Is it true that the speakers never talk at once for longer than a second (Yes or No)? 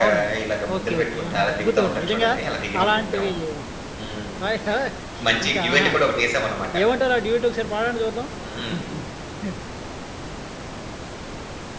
No